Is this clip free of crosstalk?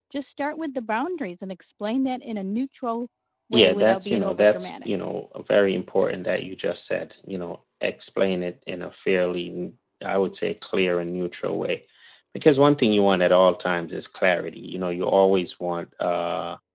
No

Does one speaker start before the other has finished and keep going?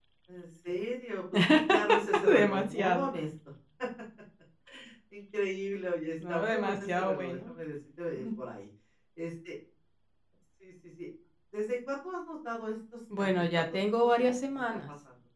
Yes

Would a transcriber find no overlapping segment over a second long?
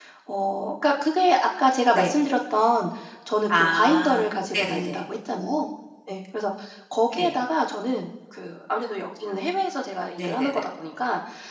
No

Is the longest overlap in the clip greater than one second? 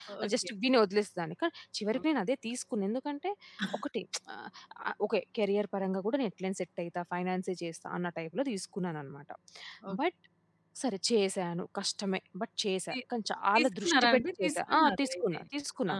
Yes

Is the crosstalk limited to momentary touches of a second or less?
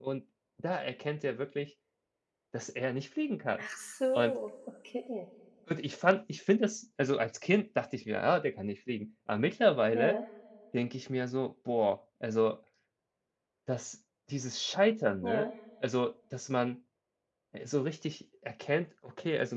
Yes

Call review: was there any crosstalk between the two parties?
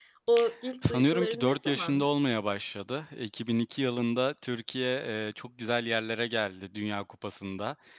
Yes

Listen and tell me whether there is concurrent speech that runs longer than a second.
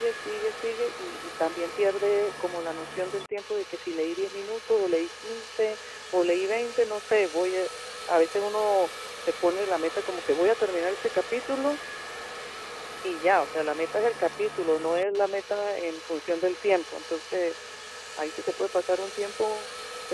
No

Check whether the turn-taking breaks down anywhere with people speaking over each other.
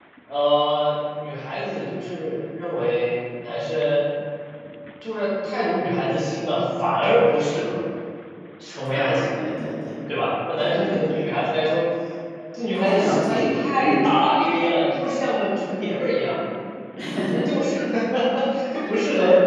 Yes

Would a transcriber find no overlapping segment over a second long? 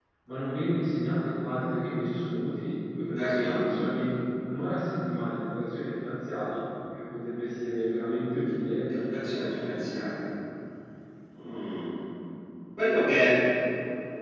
No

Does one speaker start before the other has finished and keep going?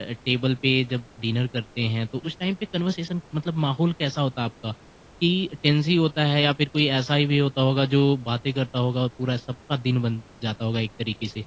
No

